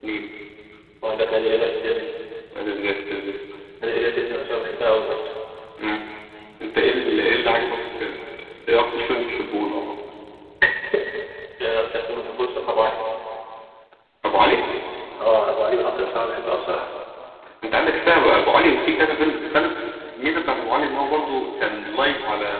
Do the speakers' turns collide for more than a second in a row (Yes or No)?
No